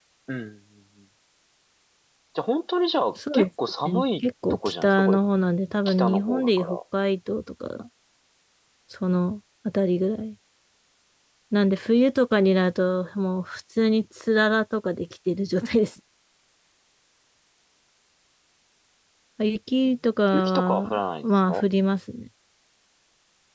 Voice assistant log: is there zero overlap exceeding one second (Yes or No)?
No